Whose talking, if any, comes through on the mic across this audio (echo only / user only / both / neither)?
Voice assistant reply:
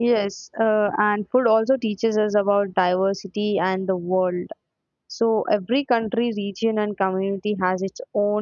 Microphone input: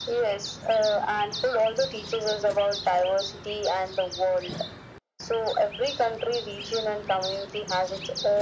echo only